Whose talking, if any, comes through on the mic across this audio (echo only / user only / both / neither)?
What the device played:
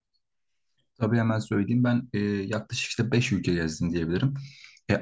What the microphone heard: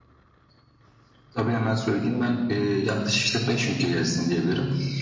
echo only